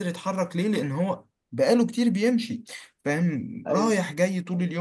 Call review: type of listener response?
listening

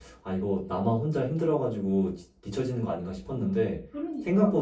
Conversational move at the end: listening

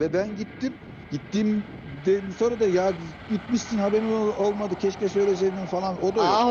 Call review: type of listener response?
taking over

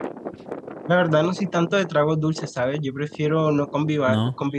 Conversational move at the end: listening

